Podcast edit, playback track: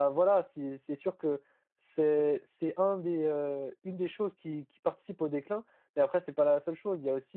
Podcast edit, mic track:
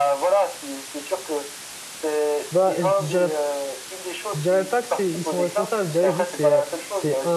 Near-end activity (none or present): present